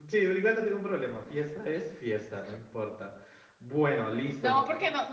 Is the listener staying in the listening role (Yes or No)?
No